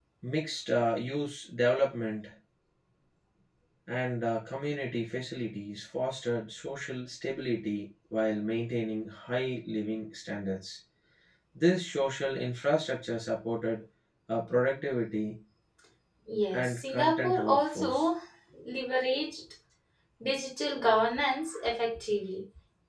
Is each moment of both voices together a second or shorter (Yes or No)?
No